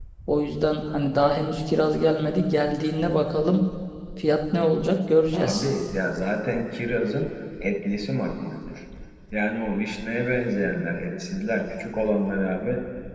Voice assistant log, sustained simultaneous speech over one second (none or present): none